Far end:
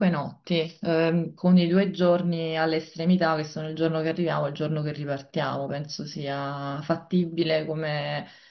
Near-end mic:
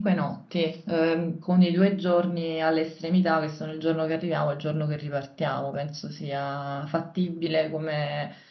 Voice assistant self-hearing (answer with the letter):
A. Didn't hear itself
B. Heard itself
B